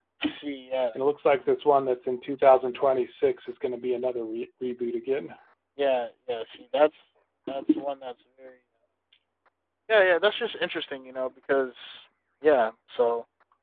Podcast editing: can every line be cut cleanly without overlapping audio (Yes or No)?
Yes